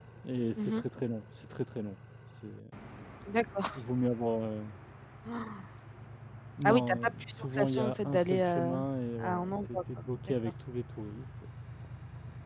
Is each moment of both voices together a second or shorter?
No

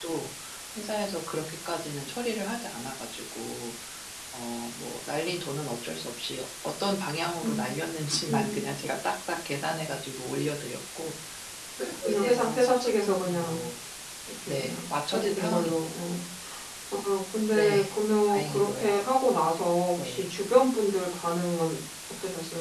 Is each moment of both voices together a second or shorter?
No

